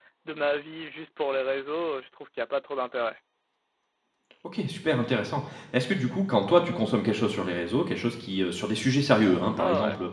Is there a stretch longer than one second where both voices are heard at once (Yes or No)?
No